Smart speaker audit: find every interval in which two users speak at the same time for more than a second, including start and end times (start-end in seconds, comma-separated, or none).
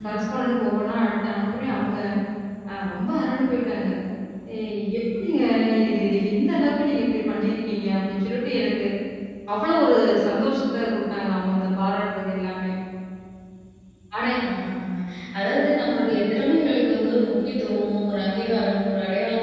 none